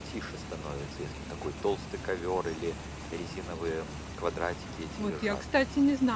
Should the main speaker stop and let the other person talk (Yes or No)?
Yes